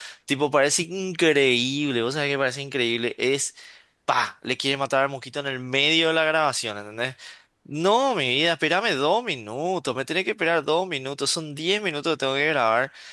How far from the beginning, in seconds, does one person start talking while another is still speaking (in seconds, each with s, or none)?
none